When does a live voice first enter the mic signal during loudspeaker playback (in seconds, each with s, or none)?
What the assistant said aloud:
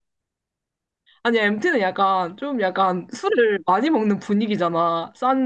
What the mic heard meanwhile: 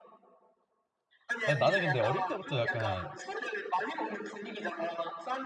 1.4 s